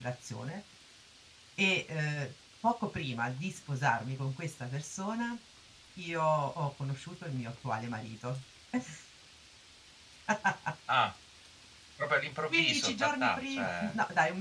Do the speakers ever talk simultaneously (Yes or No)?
Yes